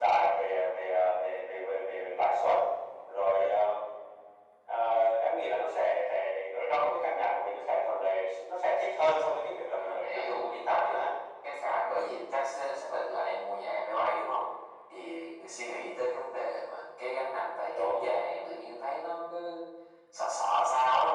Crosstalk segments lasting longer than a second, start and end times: 9.7-11.0

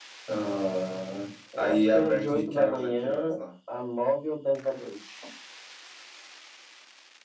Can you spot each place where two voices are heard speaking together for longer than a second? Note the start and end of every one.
1.6-3.4

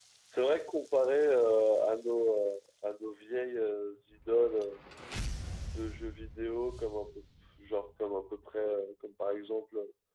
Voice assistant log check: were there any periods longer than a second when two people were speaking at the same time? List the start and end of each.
none

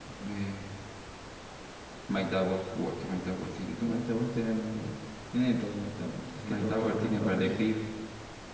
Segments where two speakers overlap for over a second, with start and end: 6.2-7.7

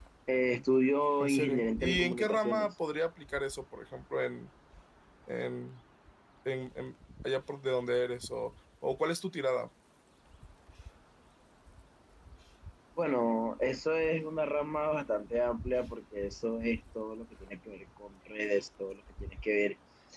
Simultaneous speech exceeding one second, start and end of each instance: 1.2-2.7

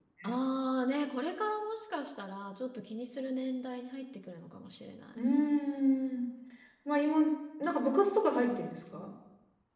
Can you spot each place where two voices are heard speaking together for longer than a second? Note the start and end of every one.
none

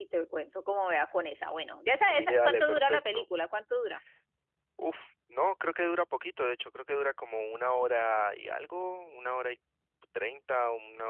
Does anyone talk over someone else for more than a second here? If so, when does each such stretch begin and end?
1.9-3.2

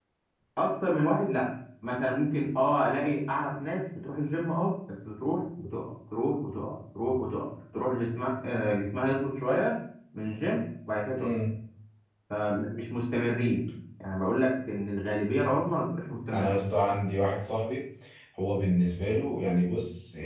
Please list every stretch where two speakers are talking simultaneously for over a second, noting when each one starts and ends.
none

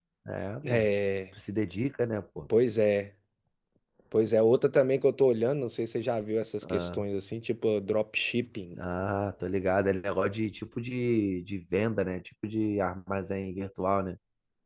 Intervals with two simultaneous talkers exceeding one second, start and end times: none

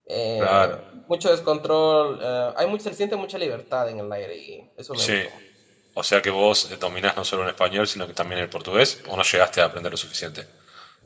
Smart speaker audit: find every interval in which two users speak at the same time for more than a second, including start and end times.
none

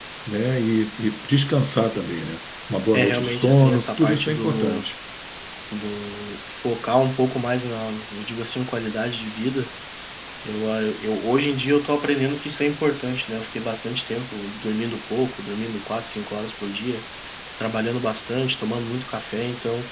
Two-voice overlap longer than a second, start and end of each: 2.9-4.9

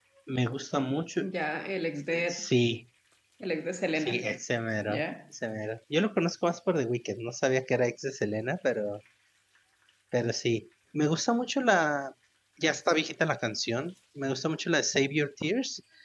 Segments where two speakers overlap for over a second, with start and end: none

